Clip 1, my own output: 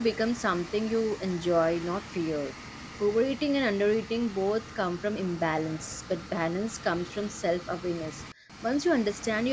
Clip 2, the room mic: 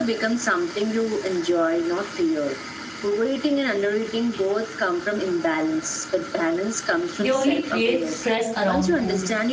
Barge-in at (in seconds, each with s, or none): 7.2 s